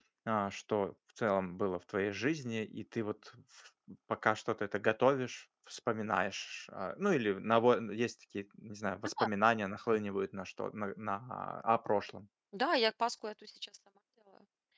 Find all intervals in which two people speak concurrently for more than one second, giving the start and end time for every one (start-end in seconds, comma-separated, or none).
none